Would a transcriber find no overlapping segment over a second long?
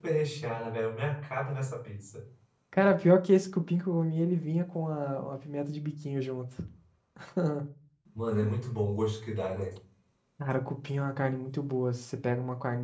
Yes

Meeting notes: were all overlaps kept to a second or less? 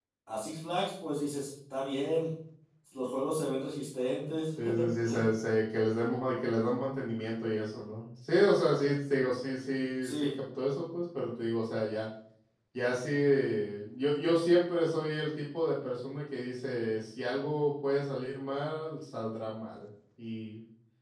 Yes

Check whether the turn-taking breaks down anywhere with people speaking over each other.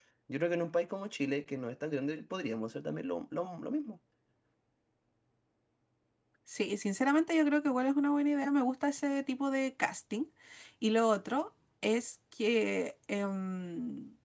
No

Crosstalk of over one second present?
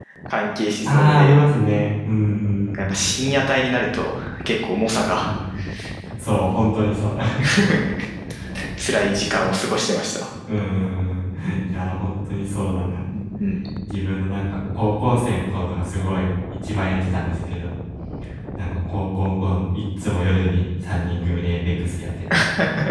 No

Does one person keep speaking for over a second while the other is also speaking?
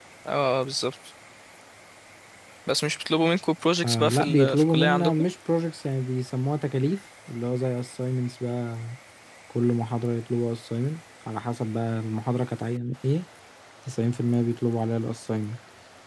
Yes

